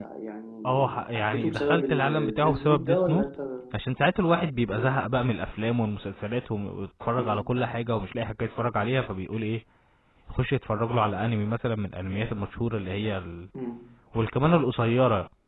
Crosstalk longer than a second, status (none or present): present